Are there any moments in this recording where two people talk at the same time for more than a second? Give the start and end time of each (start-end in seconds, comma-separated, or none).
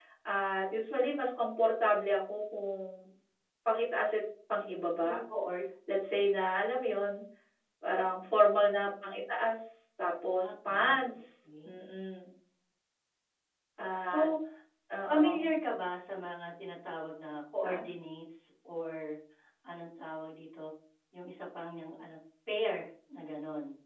10.4-11.7